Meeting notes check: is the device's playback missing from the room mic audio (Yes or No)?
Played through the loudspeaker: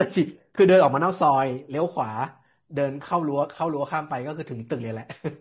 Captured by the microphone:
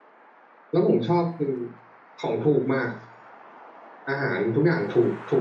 Yes